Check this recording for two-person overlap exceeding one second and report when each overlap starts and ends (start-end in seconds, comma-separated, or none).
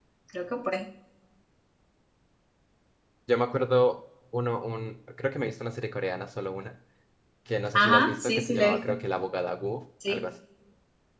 7.7-8.9